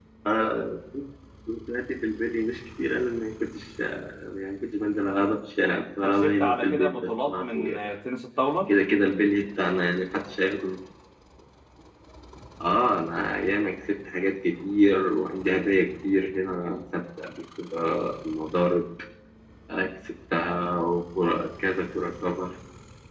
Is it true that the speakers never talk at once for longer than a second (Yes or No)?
No